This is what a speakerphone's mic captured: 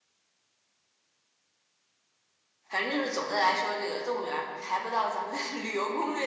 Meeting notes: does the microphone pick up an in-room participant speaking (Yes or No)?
Yes